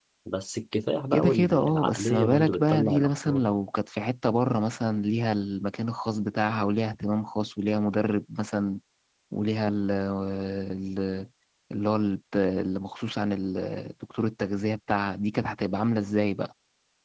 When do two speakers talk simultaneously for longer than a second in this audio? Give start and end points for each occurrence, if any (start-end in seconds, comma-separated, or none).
1.1-3.4